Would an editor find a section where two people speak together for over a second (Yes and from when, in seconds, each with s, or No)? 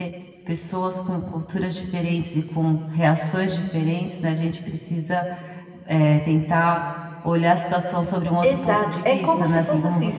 Yes, from 8.4 s